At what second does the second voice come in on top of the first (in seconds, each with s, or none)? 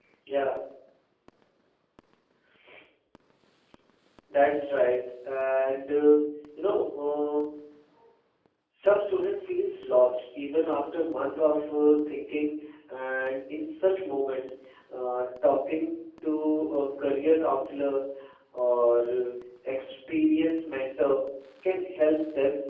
none